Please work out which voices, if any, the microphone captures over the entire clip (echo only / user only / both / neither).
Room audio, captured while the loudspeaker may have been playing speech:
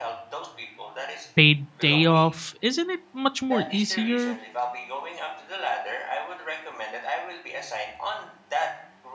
both